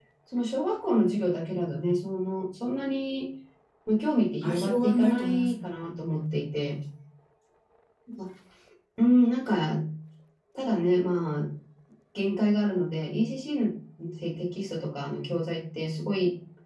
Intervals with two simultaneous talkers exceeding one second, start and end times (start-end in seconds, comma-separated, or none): 4.4-5.9